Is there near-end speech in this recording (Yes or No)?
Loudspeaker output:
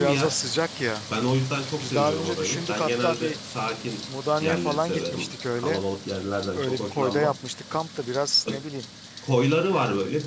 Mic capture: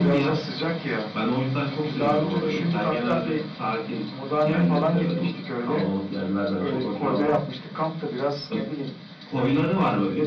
No